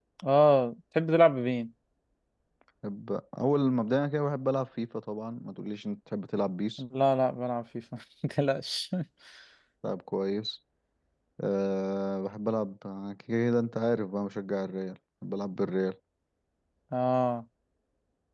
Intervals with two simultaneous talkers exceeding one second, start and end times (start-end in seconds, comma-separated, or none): none